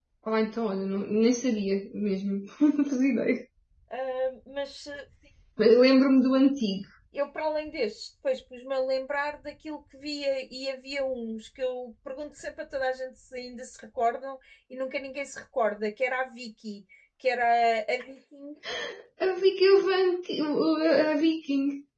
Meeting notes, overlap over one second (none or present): none